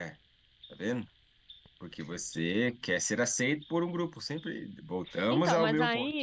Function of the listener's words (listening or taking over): taking over